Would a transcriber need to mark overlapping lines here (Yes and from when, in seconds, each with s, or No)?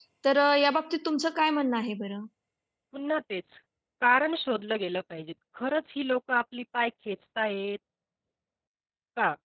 No